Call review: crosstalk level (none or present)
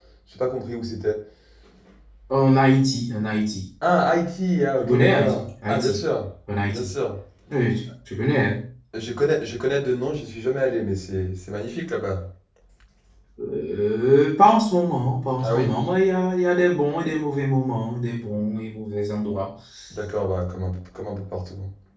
present